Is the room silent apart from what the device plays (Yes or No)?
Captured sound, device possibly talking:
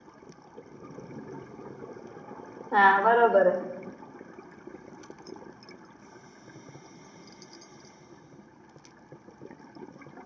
No